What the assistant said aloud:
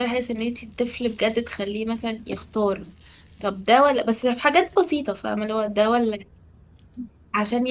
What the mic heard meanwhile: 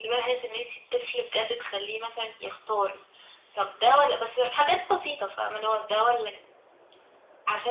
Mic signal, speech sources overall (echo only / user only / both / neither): echo only